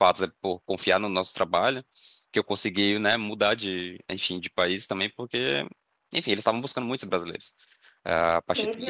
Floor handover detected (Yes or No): Yes